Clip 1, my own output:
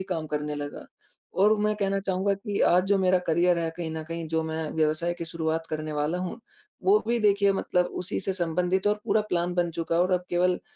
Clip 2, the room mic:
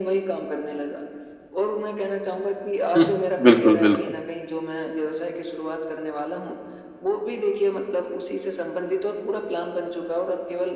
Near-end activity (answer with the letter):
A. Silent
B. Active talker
B